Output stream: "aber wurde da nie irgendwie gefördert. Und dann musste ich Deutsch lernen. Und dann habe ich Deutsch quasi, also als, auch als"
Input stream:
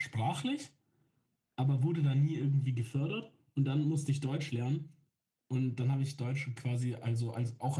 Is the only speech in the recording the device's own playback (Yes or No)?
Yes